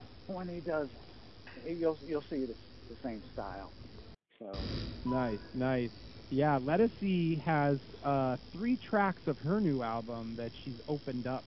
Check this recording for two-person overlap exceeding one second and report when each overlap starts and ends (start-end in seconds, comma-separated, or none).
none